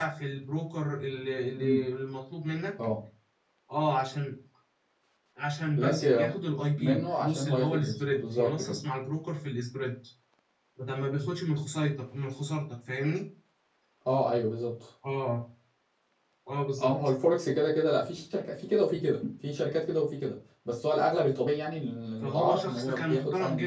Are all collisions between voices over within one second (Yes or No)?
No